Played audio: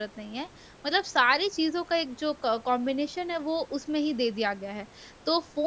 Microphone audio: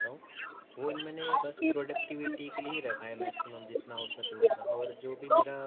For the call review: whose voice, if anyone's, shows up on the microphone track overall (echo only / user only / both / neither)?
both